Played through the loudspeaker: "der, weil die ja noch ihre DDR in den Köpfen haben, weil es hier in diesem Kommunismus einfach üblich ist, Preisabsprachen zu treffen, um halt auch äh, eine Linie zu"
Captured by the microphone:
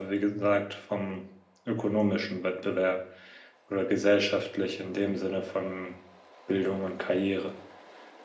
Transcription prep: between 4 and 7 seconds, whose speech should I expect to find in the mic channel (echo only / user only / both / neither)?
user only